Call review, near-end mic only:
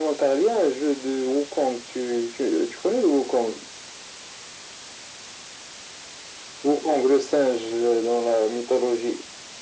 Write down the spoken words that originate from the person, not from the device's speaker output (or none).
none